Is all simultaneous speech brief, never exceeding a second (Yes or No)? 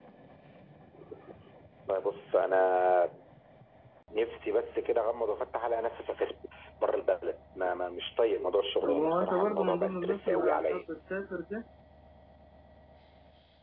No